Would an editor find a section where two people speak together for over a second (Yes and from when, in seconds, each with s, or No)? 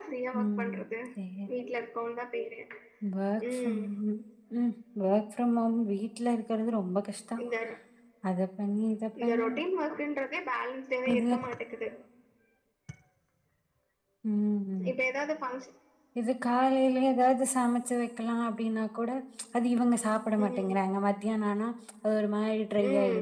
No